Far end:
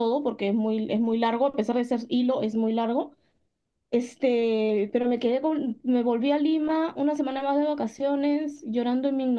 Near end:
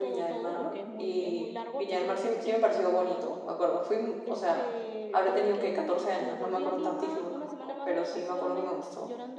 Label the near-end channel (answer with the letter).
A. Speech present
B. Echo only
A